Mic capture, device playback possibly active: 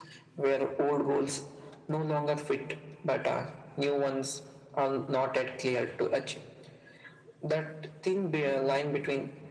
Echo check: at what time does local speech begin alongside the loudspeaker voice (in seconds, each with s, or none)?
none